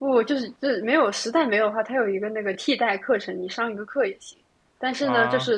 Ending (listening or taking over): listening